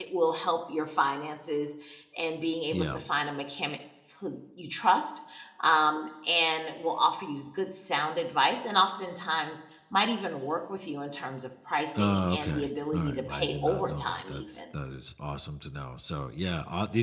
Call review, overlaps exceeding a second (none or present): present